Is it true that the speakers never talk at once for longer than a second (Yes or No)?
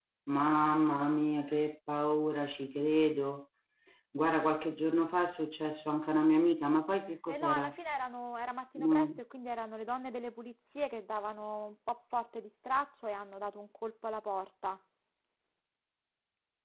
Yes